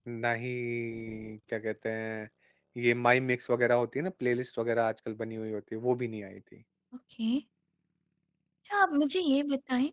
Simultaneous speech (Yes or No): No